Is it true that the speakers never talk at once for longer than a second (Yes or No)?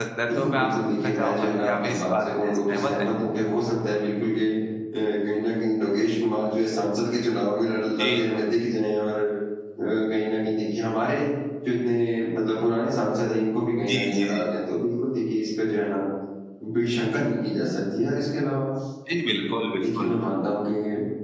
No